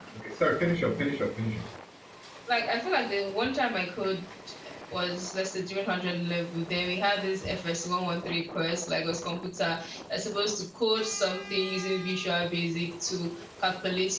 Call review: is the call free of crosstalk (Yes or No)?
Yes